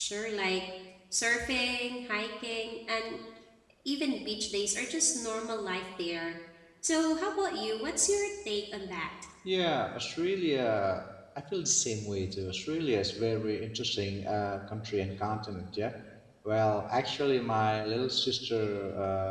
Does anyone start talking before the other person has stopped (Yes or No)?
No